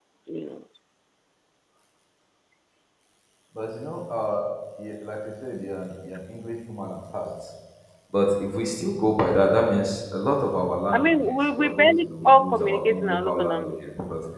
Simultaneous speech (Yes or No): Yes